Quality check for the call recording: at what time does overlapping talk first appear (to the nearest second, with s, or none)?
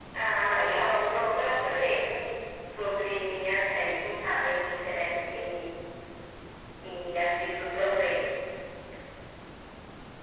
1 s